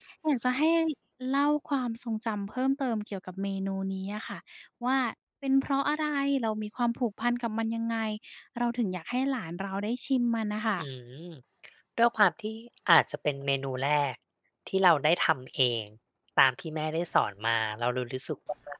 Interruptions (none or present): none